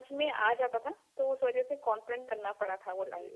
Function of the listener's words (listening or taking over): taking over